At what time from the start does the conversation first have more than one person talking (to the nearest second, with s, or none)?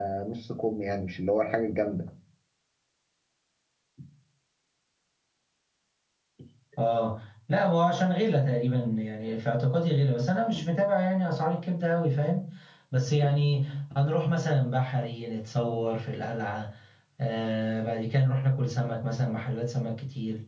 none